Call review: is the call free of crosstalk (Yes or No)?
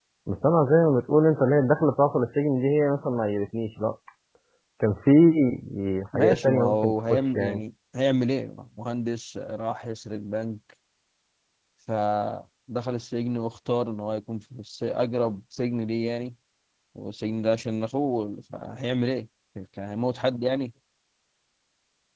No